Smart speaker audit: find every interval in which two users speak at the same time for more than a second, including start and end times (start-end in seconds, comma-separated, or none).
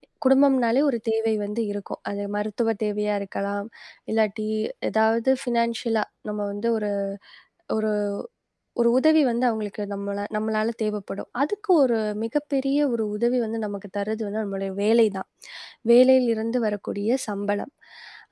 none